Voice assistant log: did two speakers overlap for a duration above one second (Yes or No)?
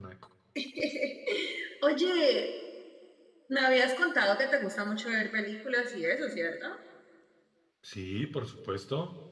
No